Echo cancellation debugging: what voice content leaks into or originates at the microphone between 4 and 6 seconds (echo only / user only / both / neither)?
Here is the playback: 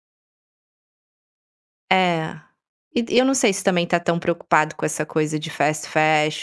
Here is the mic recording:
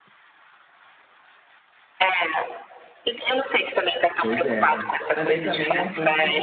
both